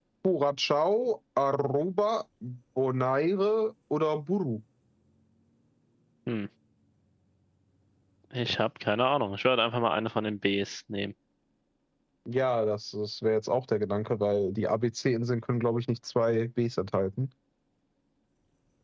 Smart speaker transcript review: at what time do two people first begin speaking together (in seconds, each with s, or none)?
none